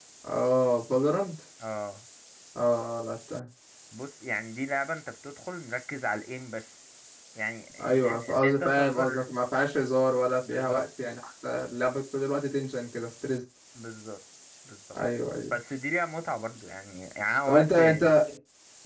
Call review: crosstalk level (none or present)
present